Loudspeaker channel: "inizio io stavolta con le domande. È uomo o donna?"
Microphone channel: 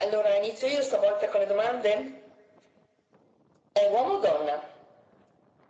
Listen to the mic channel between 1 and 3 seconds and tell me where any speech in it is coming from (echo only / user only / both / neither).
echo only